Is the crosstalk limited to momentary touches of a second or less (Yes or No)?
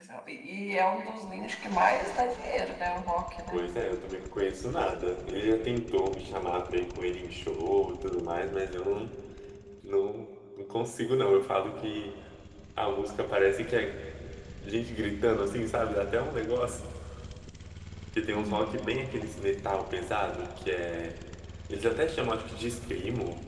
Yes